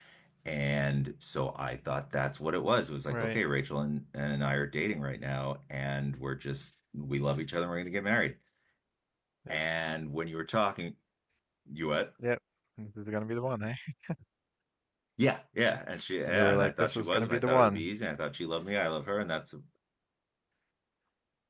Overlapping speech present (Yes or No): Yes